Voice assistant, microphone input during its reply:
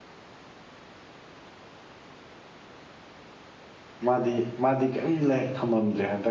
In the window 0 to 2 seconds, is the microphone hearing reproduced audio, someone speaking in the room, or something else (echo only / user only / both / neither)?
neither